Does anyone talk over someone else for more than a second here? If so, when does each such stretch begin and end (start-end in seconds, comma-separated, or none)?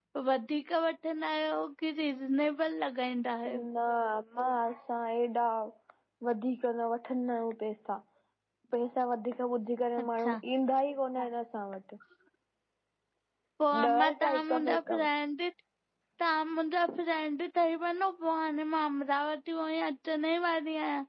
13.8-15.1